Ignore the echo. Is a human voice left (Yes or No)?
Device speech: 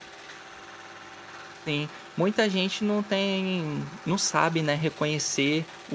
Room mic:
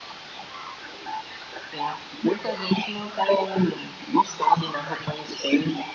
No